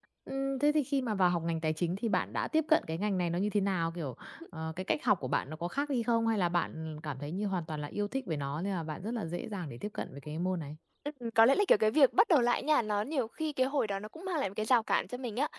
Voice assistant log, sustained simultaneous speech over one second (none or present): none